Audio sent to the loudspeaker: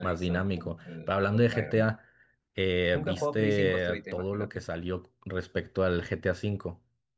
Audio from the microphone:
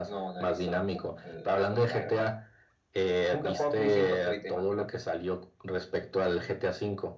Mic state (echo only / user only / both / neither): echo only